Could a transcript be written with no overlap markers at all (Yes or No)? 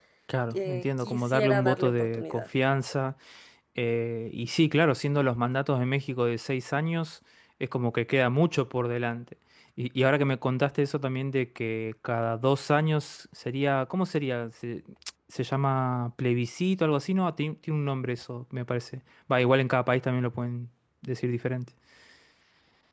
No